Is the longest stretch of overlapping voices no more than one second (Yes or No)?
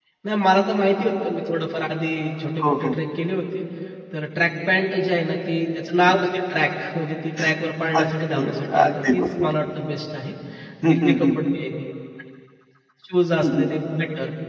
No